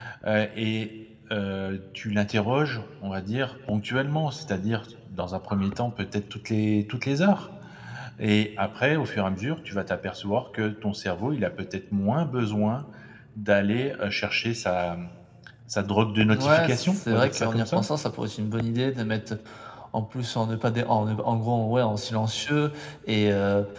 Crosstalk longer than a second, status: present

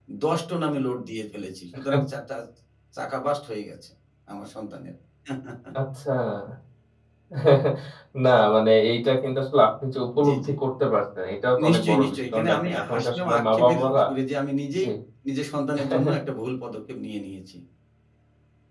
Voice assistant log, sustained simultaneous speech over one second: present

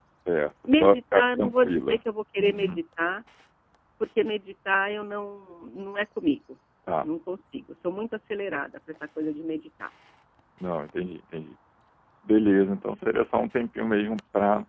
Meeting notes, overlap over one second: present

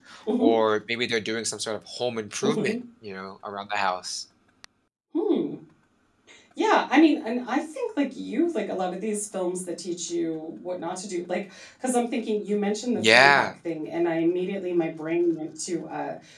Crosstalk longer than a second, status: none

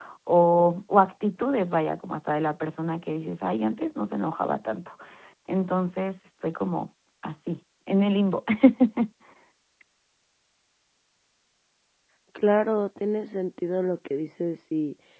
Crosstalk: none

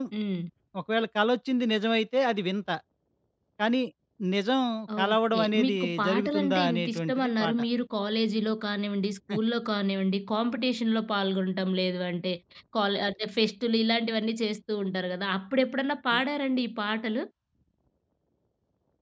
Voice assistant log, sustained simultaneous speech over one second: present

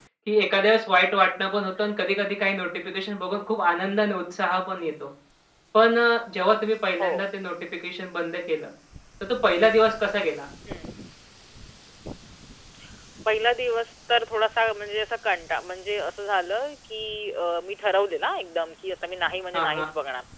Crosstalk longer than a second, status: none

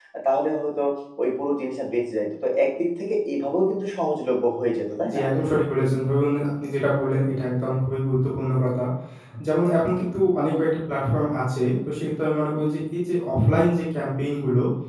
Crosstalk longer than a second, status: none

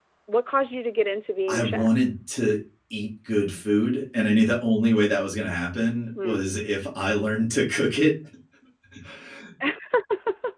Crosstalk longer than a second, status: none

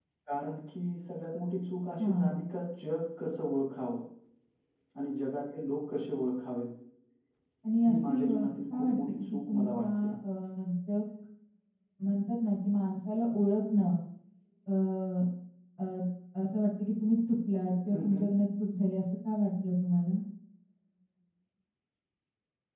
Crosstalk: present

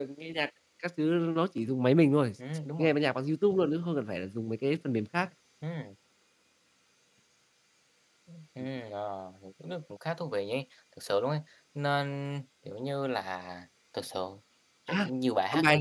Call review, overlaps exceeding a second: none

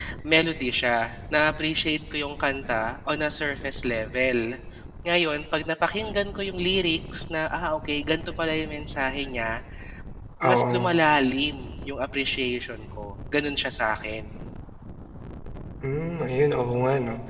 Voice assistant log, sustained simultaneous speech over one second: none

